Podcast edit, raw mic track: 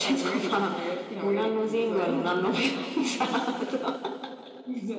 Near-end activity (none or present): none